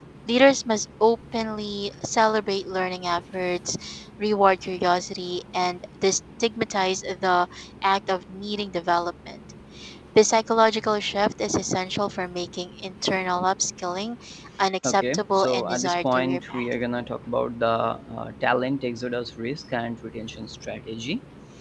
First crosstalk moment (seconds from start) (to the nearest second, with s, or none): 15 s